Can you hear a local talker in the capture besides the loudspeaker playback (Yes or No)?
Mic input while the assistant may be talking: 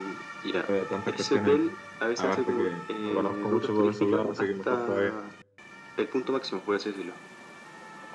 Yes